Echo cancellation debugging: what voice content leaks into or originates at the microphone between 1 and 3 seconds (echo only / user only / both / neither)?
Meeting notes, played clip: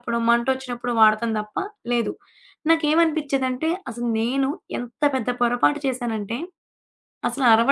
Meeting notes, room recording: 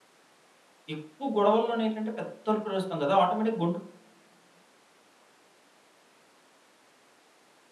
user only